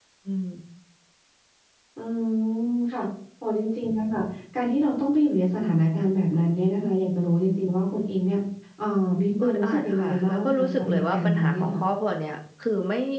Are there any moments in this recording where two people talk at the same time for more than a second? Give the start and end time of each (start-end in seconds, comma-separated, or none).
9.4-11.8